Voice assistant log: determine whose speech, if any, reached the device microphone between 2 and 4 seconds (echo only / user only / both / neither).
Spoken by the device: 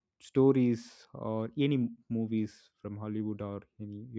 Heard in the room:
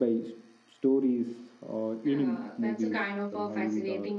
both